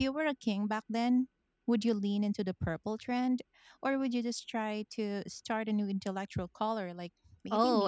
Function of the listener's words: taking over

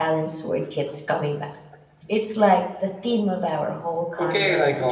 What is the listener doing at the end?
taking over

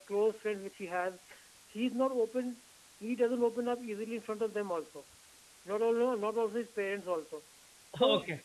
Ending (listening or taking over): listening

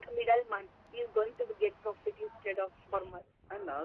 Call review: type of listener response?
taking over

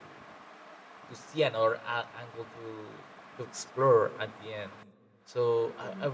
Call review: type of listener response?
listening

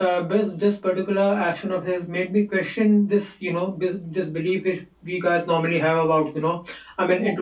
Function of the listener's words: listening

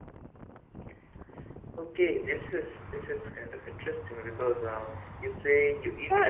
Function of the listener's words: taking over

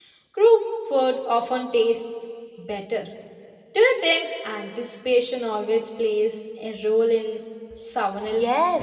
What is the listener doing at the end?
taking over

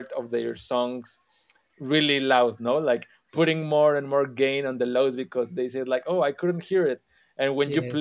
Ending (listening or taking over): listening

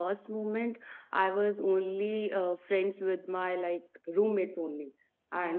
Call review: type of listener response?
listening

